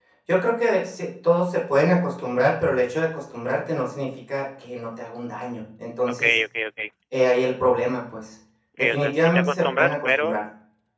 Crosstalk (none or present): present